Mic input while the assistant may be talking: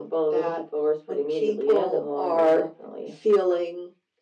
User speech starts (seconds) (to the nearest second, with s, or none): none